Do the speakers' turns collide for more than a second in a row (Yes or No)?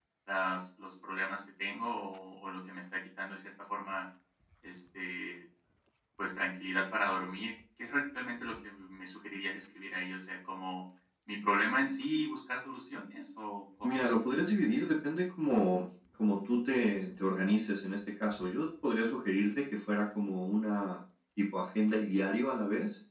No